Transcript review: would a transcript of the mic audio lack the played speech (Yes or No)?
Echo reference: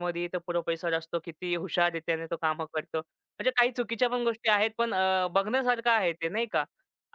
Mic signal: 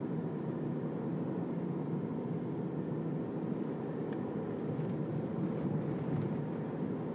Yes